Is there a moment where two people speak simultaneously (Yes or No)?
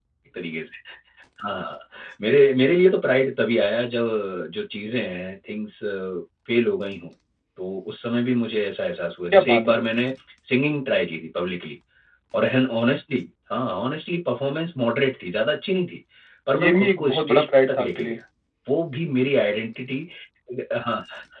Yes